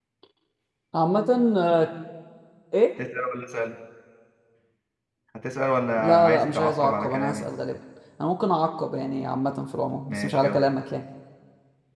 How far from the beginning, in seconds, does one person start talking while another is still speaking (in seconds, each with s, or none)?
6.0 s